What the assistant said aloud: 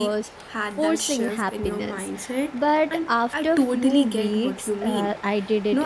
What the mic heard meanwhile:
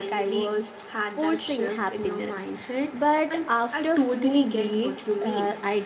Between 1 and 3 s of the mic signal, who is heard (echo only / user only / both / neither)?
echo only